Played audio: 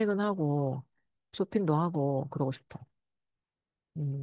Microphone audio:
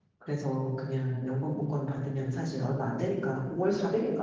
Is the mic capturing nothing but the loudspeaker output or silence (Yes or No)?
No